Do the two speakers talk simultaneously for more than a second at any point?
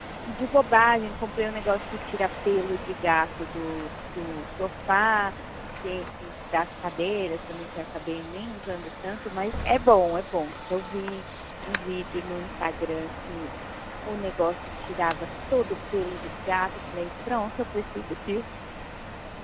No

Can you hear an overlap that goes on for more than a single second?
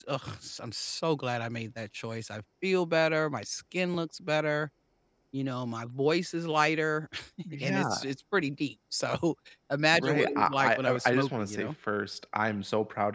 Yes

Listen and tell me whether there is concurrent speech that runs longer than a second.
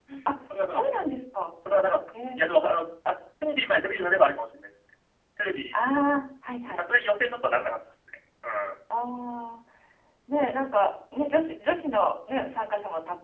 No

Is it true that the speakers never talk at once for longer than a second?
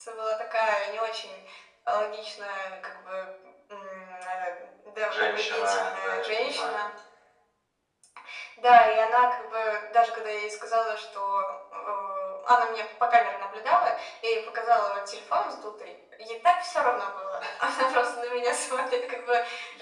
No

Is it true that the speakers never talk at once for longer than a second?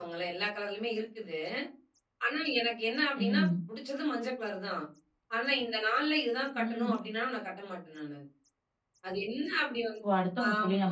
Yes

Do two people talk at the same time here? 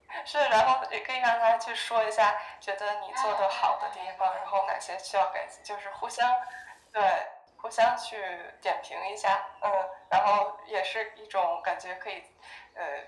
Yes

